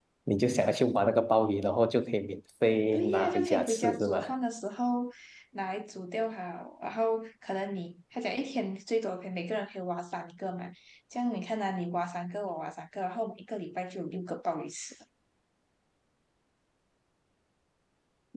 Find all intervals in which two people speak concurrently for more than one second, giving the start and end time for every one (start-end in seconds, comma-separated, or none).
2.9-4.2